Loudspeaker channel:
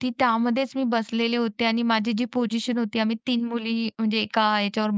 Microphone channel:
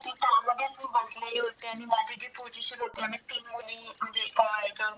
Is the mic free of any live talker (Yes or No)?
Yes